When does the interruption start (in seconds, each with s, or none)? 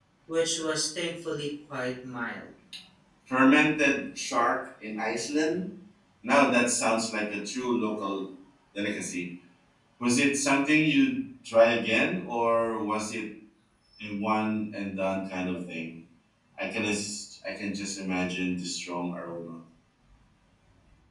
none